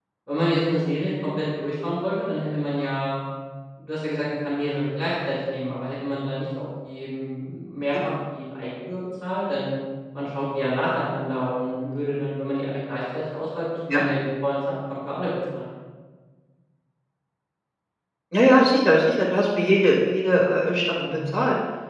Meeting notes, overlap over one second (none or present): none